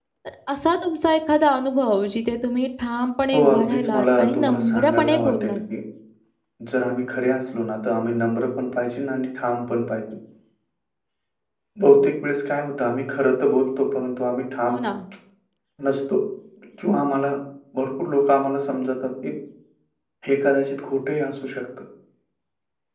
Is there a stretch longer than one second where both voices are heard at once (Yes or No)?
Yes